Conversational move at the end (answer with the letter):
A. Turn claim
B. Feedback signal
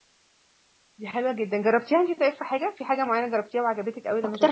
A